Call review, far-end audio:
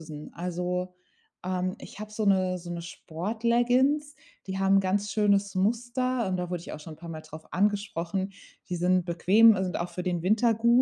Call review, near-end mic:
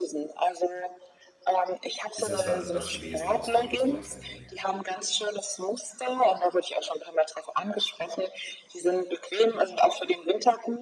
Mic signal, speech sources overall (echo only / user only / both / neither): both